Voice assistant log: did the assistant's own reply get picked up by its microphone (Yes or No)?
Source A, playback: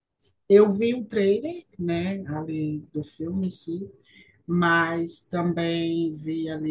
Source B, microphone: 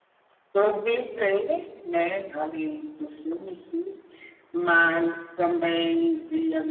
Yes